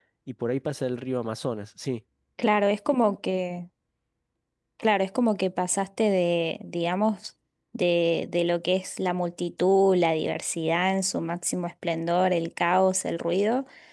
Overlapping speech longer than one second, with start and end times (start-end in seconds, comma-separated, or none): none